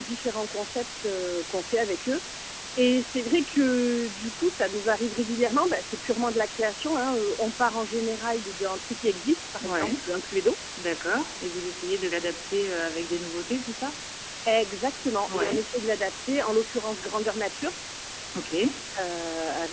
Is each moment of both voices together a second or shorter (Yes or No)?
Yes